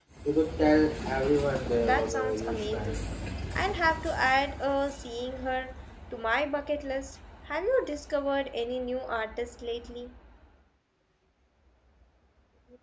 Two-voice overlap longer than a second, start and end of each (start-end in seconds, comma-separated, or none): 1.8-3.0